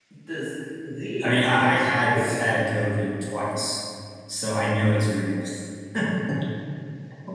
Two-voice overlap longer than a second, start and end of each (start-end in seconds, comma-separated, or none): 1.2-2.5